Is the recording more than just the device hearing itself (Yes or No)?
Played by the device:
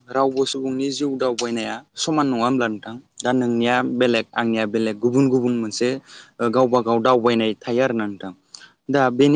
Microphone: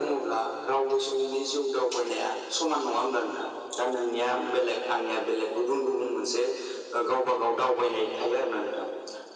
No